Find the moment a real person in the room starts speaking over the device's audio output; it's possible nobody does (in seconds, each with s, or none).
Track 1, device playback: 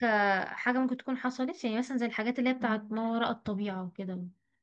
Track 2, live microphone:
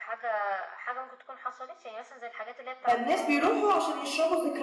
2.8 s